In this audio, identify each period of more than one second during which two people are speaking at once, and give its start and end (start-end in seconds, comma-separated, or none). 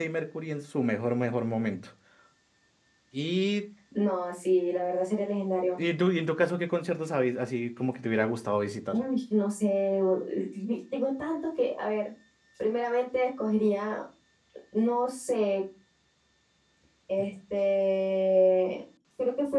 none